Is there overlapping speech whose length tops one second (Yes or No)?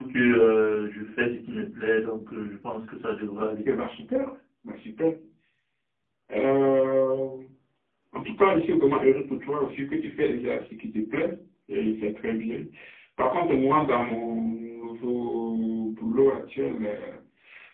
No